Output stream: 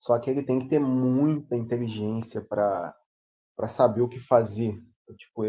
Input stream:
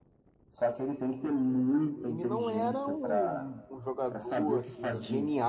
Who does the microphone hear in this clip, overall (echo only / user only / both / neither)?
both